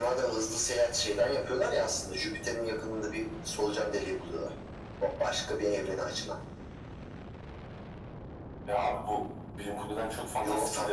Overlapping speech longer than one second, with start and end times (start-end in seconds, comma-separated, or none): none